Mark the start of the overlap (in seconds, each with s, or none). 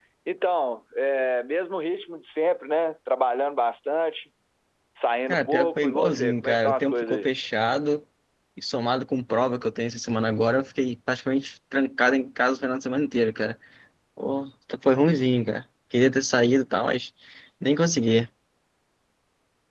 5.3 s